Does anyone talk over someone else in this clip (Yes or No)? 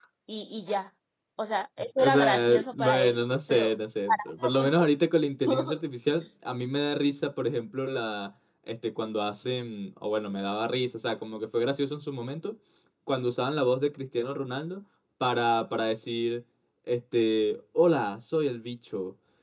Yes